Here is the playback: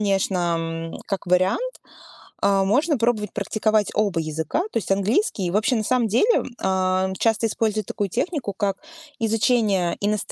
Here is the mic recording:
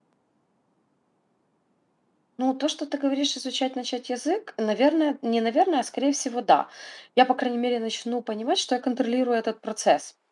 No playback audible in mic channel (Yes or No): Yes